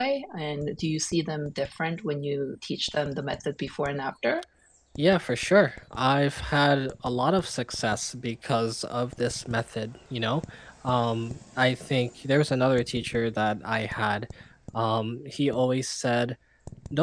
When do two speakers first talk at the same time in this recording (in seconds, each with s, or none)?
none